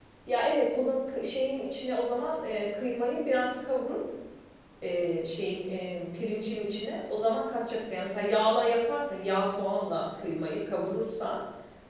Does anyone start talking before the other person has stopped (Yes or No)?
No